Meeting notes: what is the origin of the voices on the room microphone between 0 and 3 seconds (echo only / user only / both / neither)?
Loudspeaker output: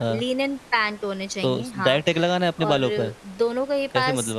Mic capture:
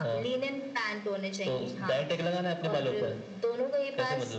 echo only